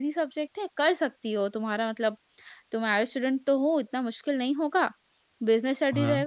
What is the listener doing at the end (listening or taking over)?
listening